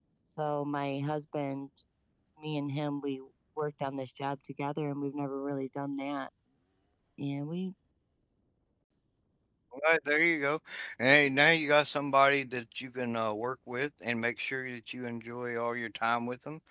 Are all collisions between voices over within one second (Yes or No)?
Yes